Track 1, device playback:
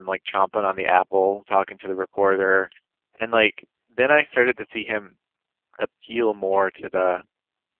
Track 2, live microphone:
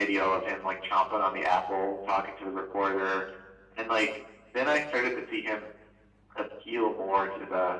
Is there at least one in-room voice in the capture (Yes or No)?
No